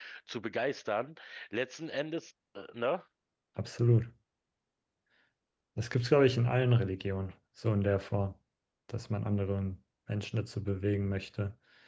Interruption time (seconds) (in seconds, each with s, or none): none